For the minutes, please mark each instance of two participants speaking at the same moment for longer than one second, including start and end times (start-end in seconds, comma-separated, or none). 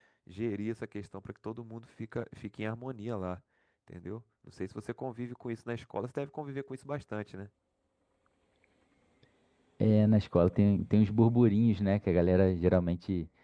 none